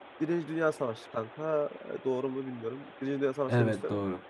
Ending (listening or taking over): listening